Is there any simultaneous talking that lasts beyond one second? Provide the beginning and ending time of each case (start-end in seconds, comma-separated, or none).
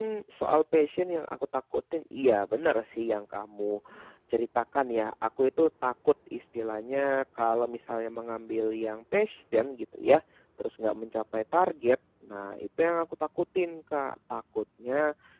none